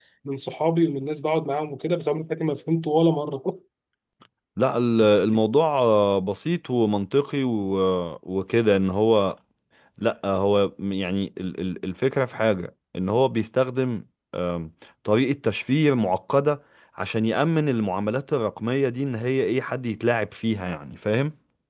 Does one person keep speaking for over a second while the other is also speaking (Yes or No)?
No